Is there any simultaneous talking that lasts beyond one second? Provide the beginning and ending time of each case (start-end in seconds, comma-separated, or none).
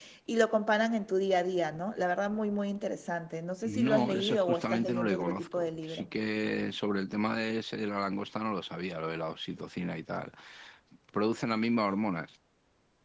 3.6-6.1